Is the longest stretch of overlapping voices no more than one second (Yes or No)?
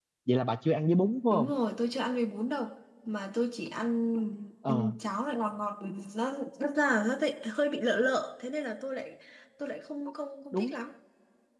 Yes